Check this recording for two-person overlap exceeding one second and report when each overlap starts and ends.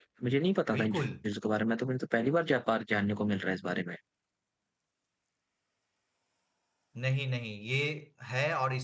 none

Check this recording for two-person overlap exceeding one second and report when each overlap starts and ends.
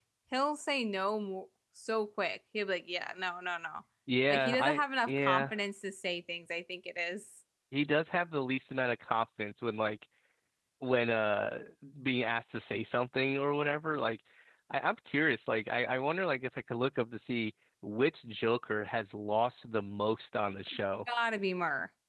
4.3-5.5

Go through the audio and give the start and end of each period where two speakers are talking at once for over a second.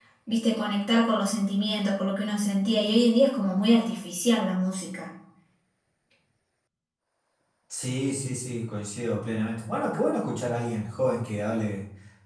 none

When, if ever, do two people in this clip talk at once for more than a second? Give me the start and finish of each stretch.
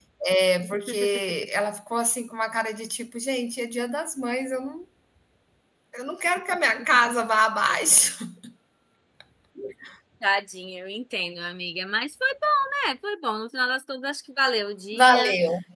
none

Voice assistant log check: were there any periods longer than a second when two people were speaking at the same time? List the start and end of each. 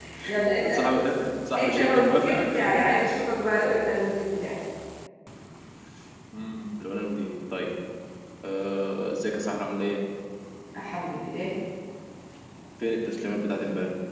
1.6-2.8

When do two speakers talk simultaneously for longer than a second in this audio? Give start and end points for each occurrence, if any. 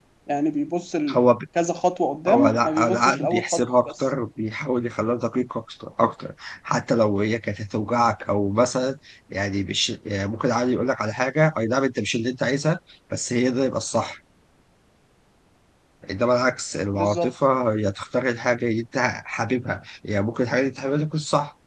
2.3-4.0

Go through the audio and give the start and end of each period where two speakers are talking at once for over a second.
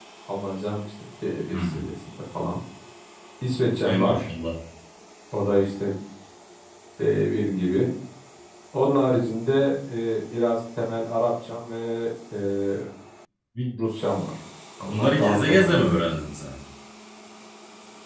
14.8-16.1

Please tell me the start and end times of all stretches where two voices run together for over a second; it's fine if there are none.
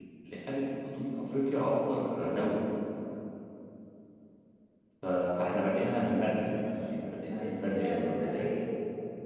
7.3-8.5

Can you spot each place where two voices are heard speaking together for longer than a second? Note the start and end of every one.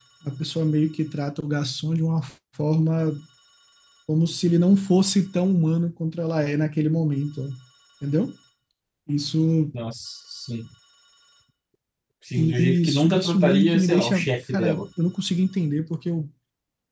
12.4-14.8

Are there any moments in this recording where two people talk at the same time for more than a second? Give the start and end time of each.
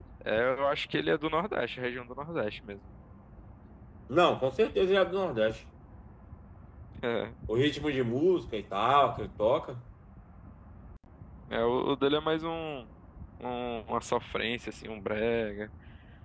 none

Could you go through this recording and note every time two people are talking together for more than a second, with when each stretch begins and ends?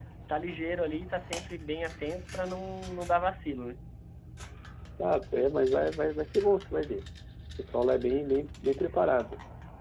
none

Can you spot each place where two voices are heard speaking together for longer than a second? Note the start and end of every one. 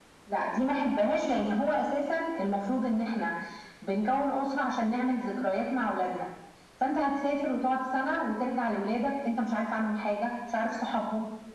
none

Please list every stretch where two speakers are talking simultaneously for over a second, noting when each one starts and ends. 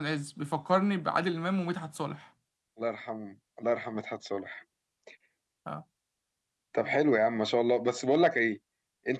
none

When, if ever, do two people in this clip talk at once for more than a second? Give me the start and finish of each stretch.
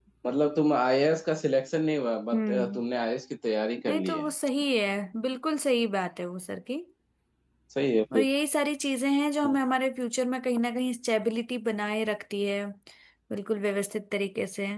none

